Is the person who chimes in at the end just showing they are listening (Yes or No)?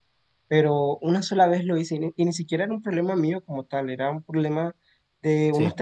Yes